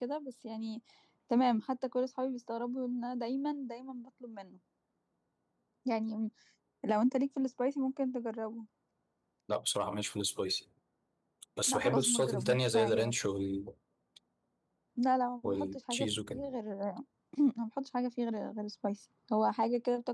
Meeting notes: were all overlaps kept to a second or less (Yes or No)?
No